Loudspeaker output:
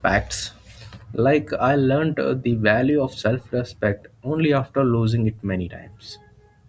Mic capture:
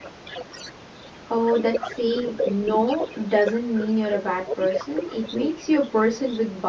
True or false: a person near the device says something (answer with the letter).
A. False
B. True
B